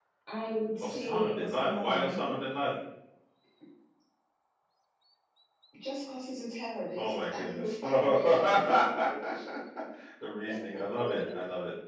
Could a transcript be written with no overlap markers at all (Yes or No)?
No